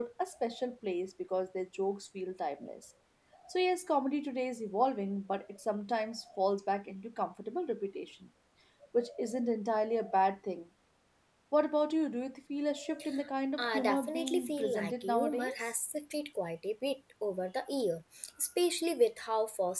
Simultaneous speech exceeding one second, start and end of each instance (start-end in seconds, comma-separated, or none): 13.6-15.7